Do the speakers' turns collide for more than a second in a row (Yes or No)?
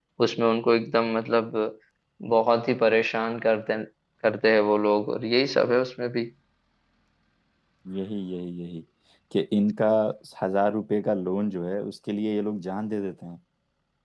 No